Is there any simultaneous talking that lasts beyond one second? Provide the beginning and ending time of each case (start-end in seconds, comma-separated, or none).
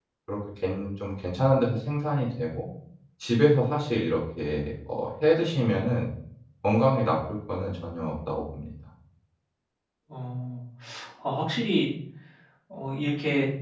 none